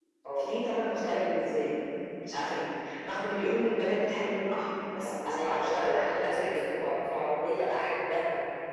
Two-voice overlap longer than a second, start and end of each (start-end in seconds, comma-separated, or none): 5.2-6.5